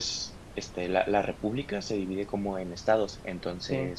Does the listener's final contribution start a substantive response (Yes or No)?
No